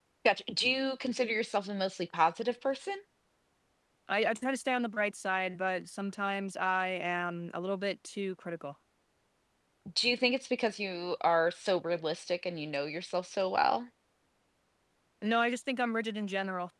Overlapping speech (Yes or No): No